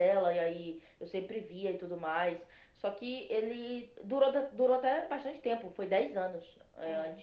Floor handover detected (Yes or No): No